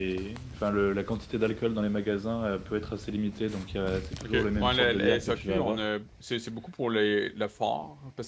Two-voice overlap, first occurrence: 4.2 s

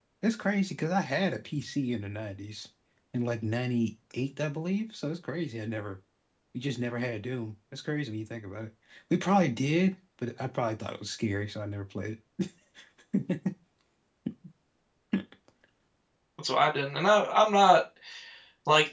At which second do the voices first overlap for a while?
none

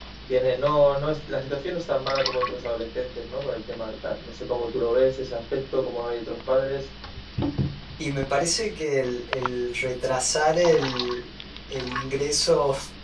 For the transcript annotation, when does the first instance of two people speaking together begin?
none

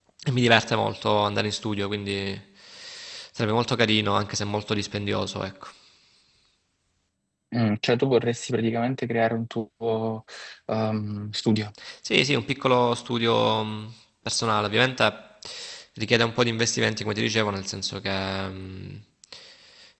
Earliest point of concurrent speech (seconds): none

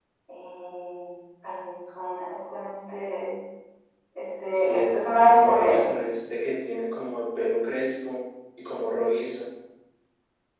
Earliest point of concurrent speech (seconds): 4.5 s

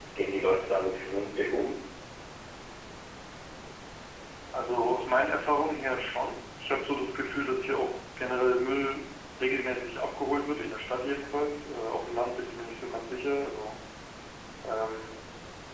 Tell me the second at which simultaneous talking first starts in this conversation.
none

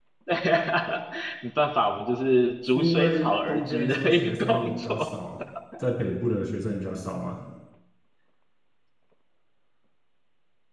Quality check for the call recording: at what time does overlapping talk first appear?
2.8 s

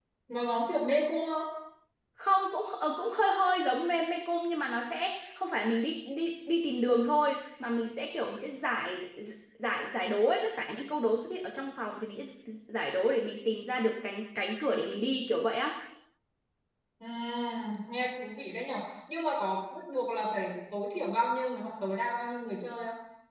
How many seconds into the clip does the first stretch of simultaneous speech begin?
none

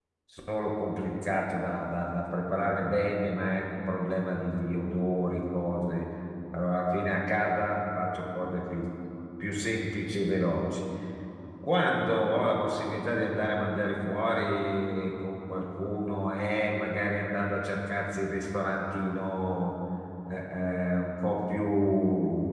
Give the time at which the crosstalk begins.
none

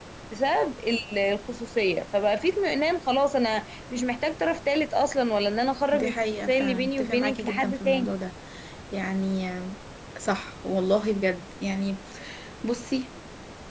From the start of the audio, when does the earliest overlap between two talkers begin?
5.9 s

